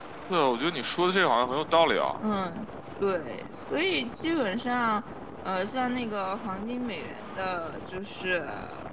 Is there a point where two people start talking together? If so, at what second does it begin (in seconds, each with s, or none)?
none